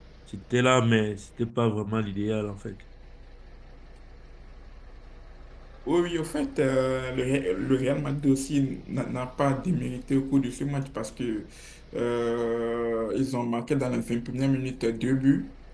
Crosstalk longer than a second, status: none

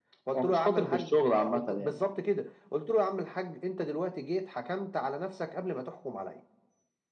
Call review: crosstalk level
present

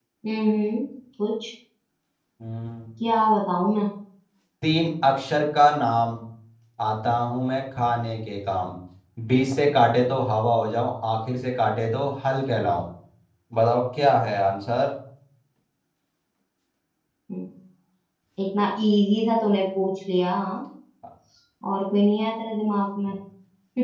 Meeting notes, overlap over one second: none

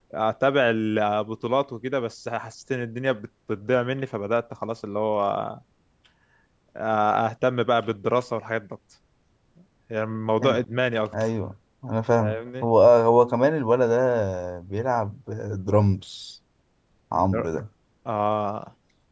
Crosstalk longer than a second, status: none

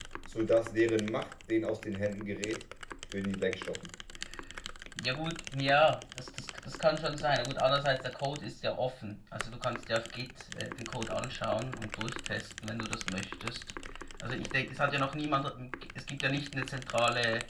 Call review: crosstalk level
none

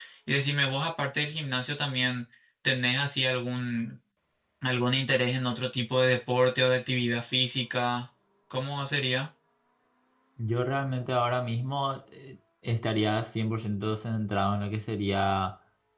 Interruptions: none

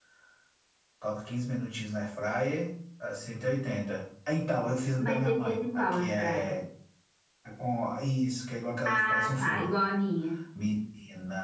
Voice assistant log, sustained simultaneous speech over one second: present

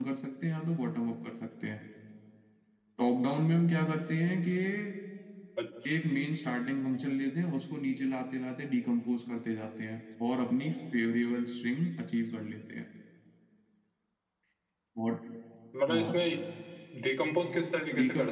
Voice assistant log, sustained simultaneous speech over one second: none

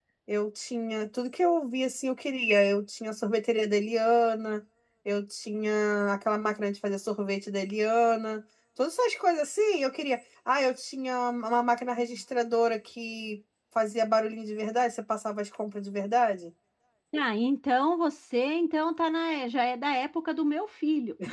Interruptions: none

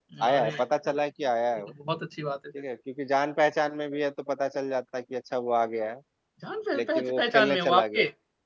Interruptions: present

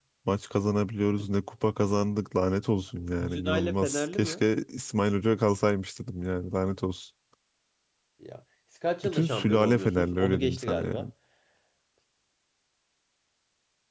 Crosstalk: present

